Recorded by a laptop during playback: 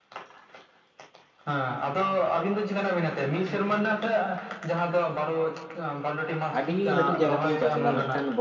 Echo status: present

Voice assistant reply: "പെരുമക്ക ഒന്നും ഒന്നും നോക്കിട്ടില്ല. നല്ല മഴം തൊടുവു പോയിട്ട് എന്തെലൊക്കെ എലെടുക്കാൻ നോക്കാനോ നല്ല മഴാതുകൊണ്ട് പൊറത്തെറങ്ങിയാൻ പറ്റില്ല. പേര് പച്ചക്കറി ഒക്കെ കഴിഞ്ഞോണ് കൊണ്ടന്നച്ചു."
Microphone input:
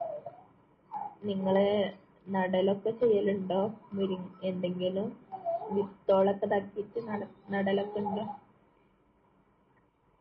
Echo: none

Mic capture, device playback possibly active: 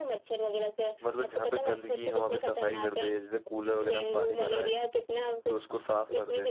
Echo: present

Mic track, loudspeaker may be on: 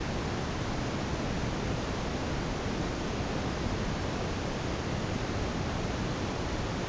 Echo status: none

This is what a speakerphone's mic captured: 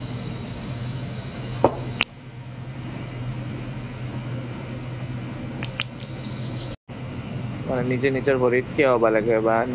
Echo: none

